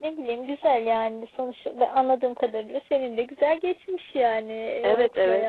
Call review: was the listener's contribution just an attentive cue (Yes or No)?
No